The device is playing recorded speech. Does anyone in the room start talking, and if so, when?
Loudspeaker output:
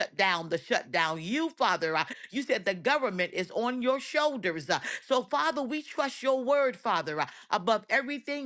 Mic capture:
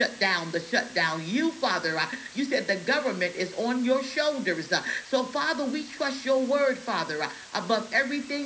none

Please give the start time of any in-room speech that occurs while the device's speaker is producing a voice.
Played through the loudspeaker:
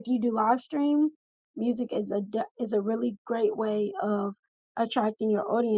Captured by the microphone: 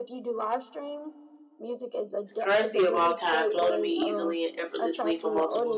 2.4 s

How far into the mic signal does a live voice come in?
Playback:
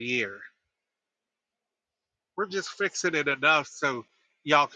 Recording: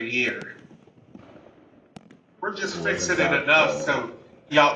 2.7 s

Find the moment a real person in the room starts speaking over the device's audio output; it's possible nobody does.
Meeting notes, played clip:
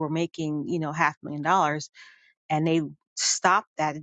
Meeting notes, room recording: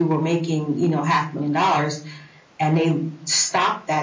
none

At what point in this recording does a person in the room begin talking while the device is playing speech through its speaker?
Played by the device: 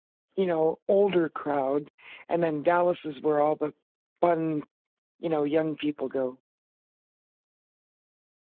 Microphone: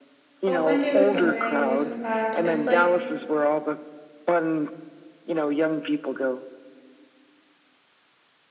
0.5 s

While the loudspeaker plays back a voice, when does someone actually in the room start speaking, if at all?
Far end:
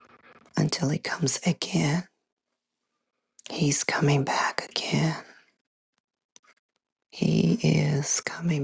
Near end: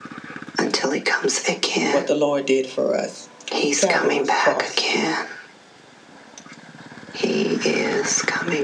1.8 s

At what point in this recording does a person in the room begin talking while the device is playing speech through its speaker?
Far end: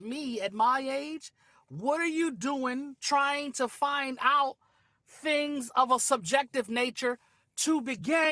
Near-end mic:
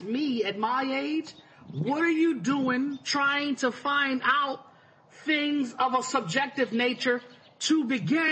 none

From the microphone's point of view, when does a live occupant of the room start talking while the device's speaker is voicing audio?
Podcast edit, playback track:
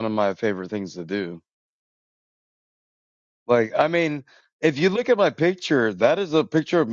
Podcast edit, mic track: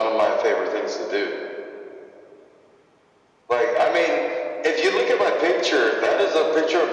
none

